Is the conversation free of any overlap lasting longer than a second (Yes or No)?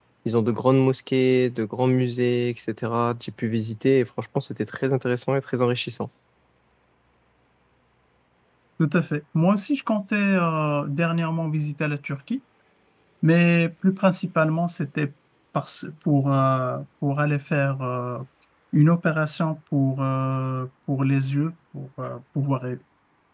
Yes